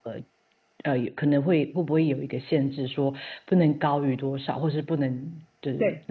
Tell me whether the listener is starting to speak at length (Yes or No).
Yes